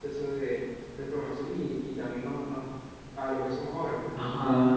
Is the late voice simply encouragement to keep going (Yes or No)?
No